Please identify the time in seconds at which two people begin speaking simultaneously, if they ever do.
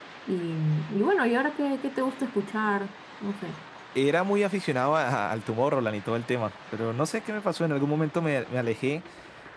none

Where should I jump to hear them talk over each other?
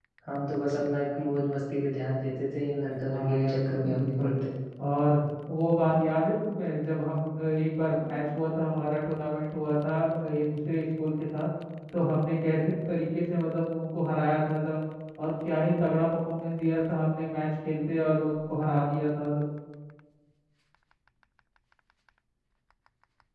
3 s

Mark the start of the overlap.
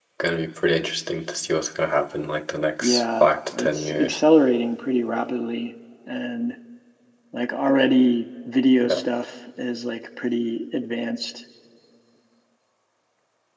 3 s

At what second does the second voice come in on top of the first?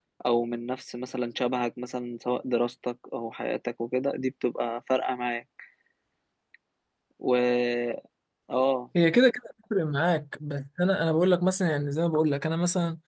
none

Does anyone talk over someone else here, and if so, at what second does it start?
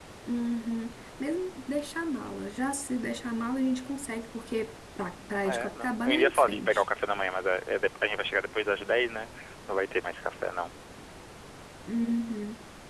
5 s

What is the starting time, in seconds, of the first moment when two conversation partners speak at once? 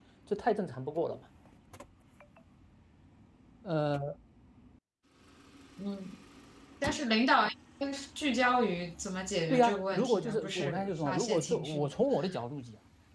9 s

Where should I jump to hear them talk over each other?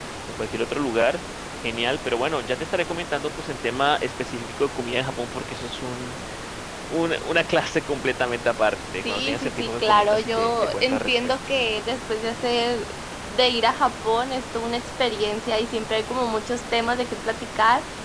9 s

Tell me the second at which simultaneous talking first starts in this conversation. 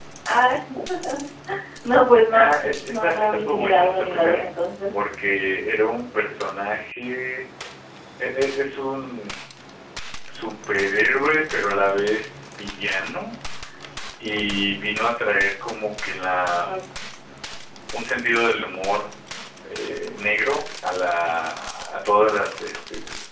2 s

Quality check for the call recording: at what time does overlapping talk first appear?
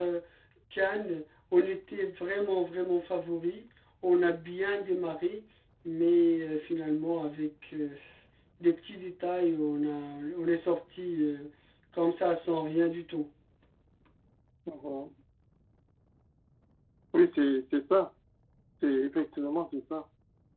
none

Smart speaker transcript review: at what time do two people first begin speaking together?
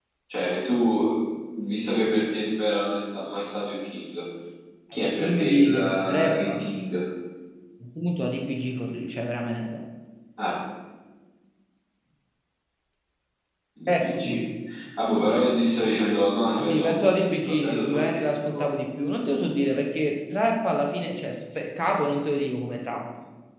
5 s

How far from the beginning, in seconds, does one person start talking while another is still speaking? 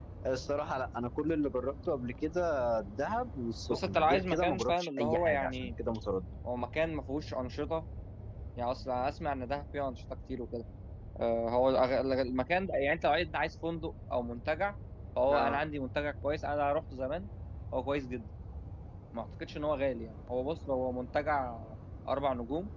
4 s

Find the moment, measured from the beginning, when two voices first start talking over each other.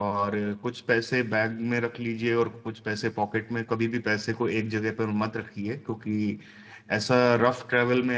none

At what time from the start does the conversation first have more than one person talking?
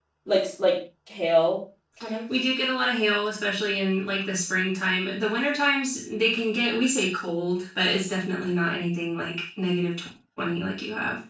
none

